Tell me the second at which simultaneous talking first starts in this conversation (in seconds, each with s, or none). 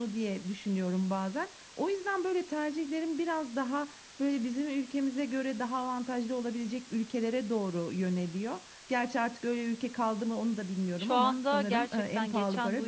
11.0 s